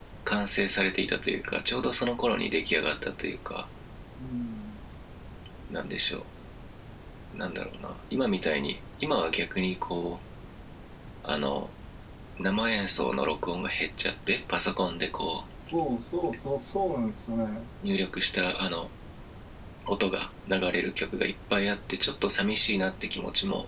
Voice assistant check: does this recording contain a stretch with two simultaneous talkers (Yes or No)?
No